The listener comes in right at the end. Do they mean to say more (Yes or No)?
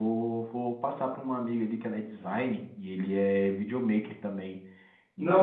Yes